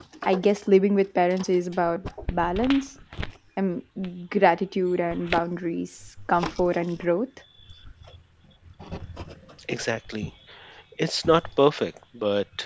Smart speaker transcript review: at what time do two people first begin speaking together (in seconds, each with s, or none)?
none